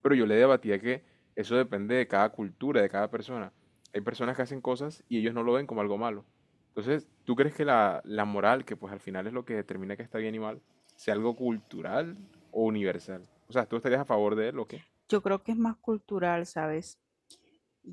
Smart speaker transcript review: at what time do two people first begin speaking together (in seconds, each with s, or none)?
none